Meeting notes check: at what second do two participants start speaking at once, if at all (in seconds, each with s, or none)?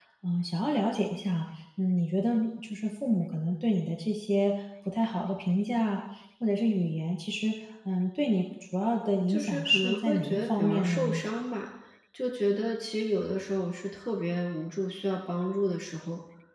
9.3 s